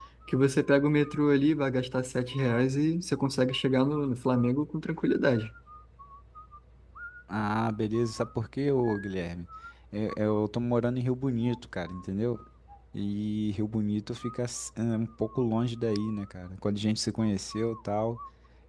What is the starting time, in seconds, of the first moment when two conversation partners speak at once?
none

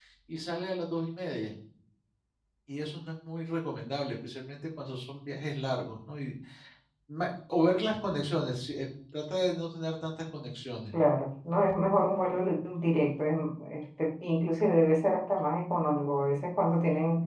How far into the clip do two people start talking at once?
none

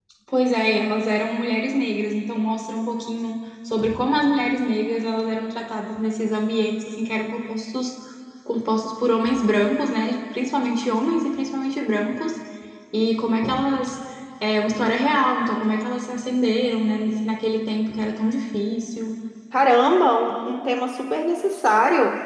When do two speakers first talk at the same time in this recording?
none

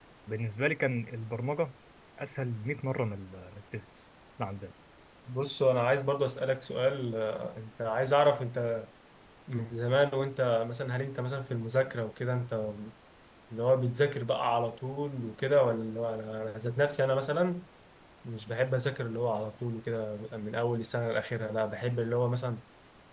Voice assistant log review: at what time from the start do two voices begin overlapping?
none

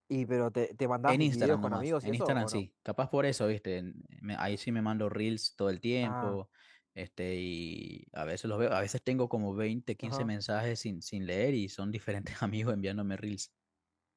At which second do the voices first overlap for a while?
1.1 s

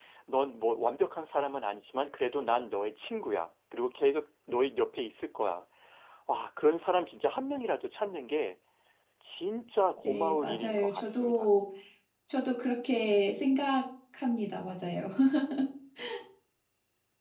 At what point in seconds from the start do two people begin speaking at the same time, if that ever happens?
10.0 s

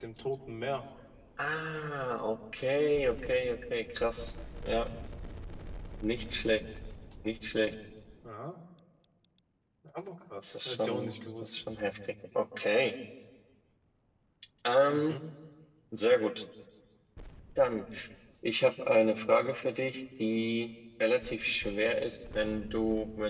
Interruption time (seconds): 10.4 s

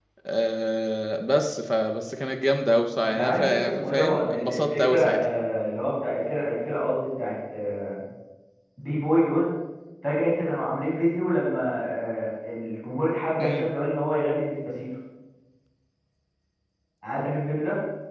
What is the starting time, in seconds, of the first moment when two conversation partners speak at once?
3.0 s

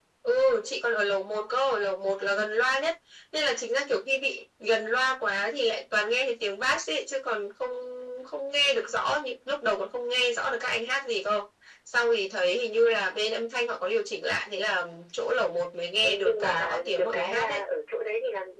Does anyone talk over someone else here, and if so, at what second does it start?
16.0 s

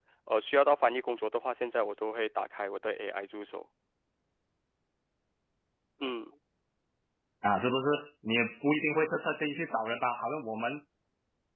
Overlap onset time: none

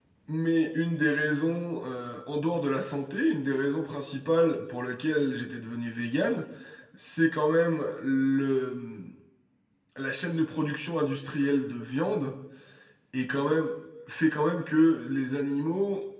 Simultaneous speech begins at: none

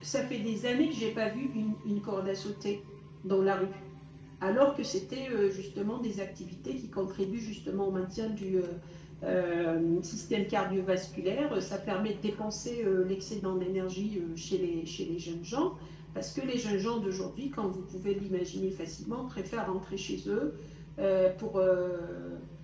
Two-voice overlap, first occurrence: none

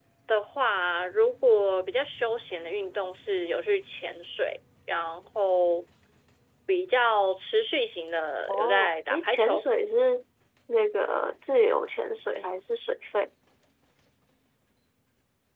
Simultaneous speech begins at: 8.5 s

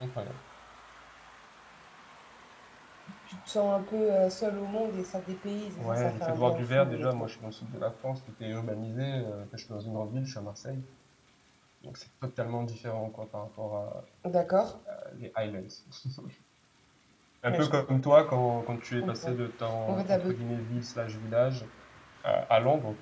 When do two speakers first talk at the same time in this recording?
5.8 s

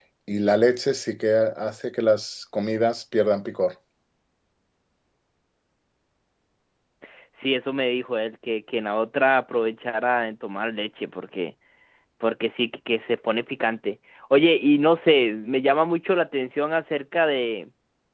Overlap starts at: none

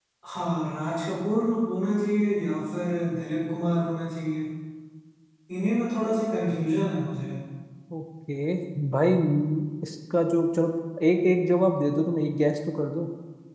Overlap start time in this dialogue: none

